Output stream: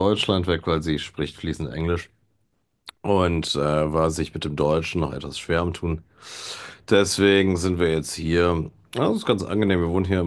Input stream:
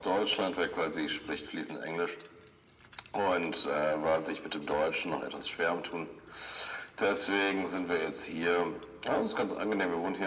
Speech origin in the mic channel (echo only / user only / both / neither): echo only